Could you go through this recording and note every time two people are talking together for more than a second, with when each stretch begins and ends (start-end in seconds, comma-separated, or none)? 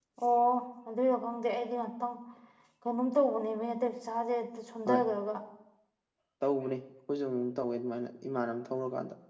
none